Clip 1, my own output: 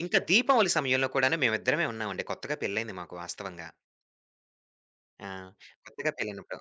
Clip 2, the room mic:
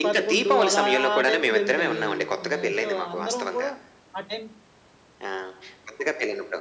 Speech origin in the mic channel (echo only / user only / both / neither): both